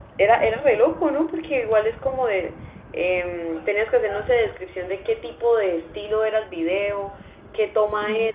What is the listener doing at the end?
listening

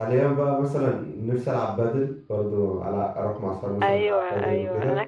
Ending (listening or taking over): taking over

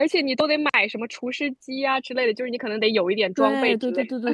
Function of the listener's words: taking over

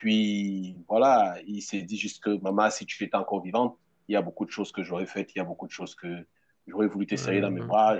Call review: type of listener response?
listening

